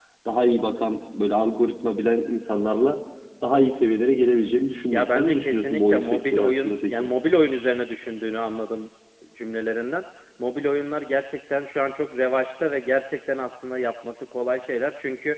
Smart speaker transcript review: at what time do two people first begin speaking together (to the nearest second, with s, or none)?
5 s